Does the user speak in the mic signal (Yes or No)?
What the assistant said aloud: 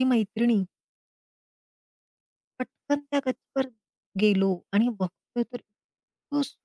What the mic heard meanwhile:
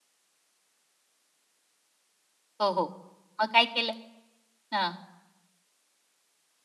Yes